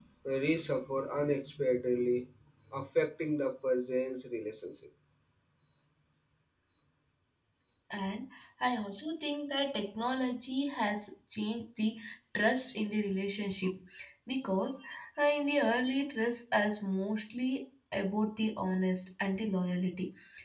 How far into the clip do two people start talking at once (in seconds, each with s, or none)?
none